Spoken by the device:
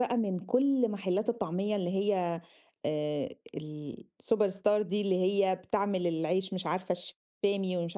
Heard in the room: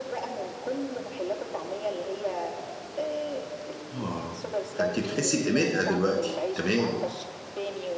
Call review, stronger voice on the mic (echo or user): user